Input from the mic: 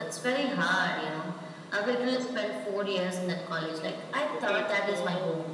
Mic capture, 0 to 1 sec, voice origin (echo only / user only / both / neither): echo only